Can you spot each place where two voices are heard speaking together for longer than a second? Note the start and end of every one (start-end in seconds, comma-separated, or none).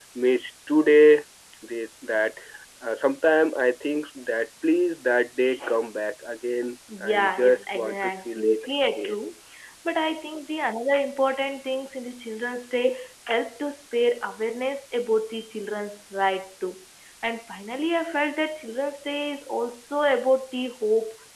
7.0-9.2